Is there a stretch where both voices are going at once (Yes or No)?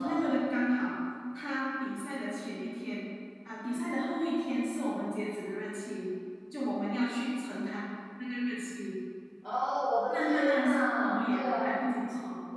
Yes